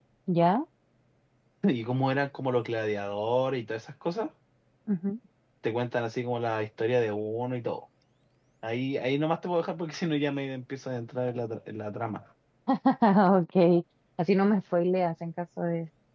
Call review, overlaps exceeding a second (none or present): none